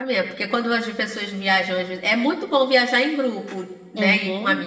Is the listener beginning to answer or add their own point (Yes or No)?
No